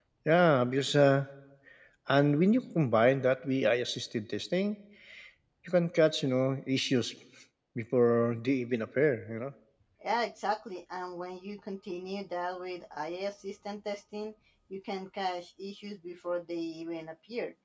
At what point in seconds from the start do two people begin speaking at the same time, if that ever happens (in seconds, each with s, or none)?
none